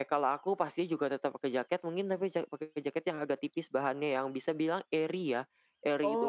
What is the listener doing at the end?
listening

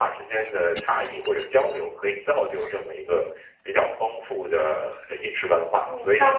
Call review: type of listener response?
taking over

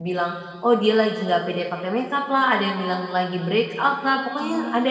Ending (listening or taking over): listening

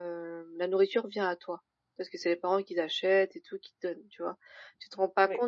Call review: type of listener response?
listening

